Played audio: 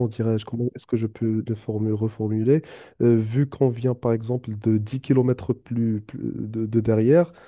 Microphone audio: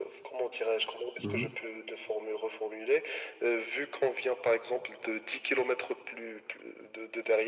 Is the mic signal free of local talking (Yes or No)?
No